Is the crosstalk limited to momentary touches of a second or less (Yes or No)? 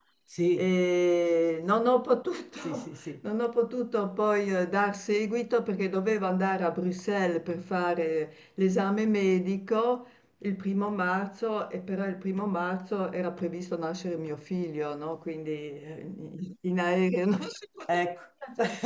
Yes